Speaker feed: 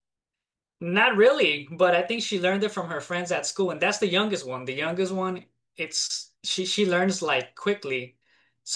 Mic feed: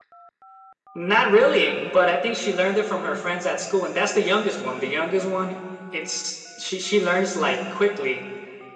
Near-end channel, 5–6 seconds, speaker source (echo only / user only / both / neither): echo only